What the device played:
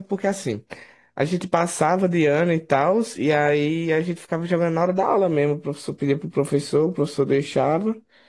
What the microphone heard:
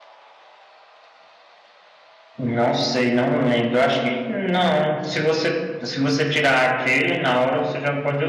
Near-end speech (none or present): present